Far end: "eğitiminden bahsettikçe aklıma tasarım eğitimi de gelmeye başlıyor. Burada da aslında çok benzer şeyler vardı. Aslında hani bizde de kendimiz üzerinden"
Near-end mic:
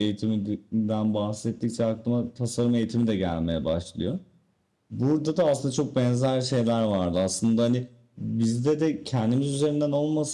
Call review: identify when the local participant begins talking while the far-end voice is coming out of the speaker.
none

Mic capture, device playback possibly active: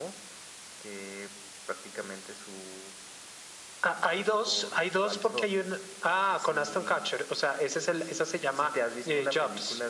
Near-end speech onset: none

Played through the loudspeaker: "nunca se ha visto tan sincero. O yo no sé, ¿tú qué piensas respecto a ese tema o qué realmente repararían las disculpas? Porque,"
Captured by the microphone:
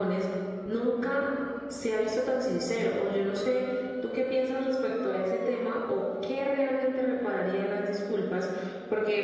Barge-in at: none

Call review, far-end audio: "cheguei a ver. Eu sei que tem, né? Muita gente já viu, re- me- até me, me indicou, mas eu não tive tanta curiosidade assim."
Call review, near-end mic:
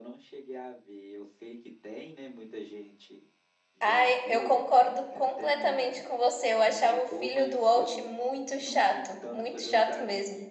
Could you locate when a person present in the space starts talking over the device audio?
3.8 s

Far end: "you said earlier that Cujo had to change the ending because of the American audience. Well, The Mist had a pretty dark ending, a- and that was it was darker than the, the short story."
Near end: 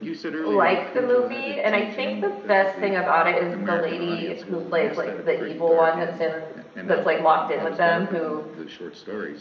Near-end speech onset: 0.4 s

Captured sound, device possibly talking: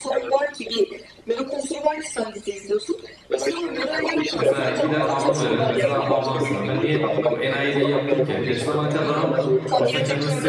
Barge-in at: 4.4 s

